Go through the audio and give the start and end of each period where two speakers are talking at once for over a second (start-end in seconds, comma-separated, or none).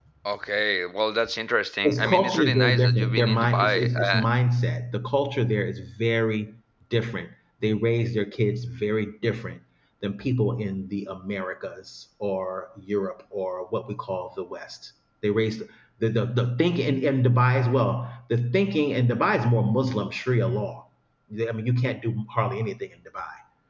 1.8-4.2